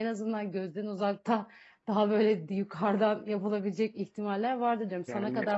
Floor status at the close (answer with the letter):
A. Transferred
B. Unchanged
B